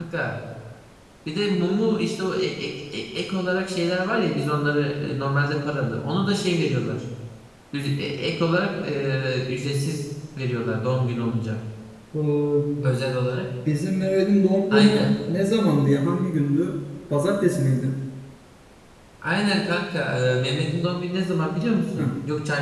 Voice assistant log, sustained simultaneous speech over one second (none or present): none